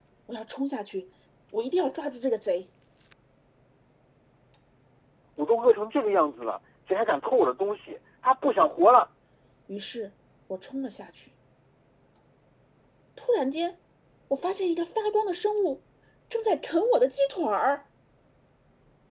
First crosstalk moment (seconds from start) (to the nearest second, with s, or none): none